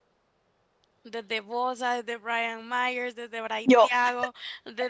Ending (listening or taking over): listening